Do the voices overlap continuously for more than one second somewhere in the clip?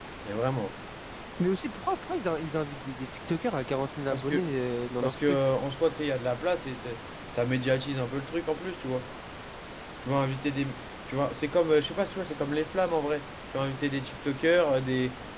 No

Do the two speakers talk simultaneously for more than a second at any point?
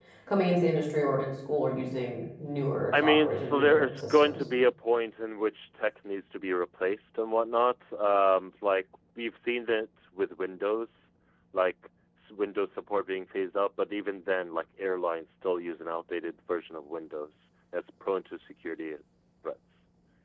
Yes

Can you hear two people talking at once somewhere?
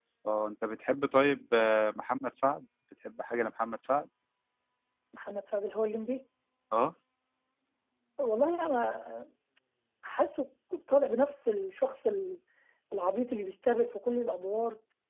No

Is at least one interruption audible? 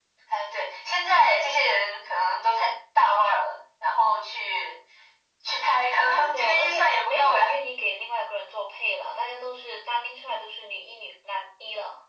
Yes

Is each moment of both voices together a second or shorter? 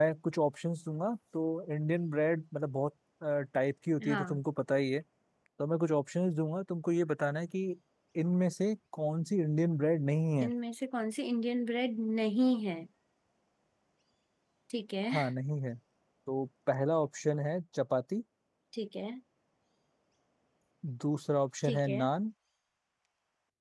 Yes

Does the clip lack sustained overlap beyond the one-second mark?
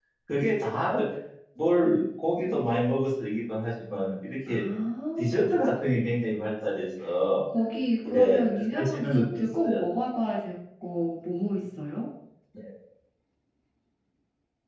No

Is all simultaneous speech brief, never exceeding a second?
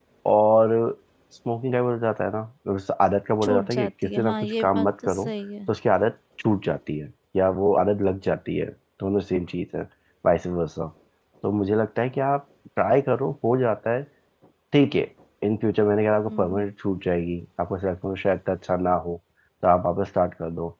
No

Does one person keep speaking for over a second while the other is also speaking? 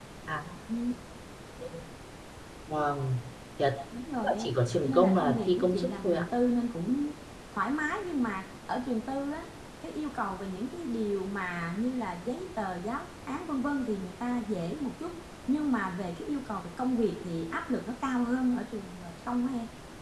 Yes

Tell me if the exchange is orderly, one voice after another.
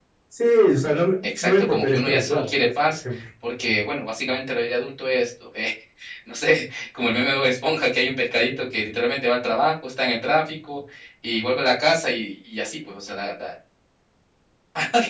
No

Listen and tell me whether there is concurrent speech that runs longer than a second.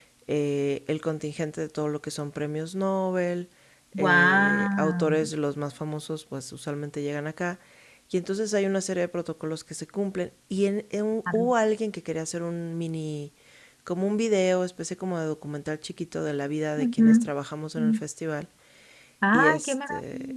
Yes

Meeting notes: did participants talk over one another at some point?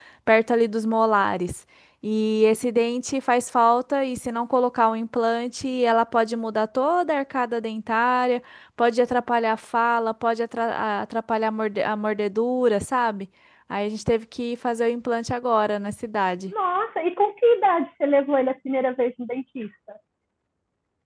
No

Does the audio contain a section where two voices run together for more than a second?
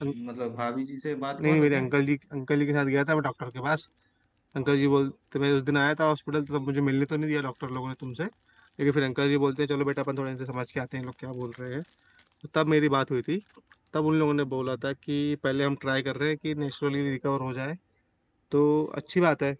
No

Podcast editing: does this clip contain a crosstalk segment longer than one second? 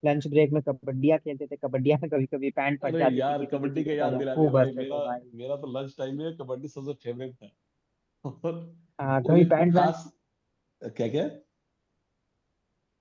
Yes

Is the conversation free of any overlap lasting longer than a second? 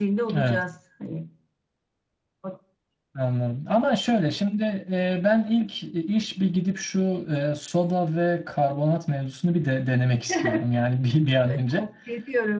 Yes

